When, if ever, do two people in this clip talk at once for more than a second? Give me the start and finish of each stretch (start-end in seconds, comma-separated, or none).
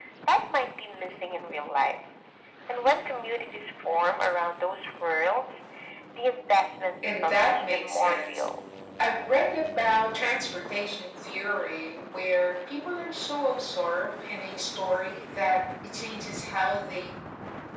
7.1-8.4